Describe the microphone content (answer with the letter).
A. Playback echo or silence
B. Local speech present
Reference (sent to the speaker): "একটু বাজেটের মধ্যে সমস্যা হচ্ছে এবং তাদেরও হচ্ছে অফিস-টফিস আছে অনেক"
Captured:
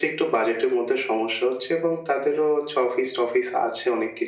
A